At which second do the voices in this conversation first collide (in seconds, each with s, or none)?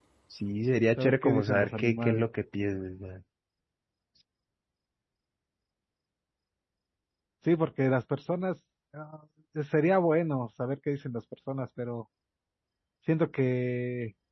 1.0 s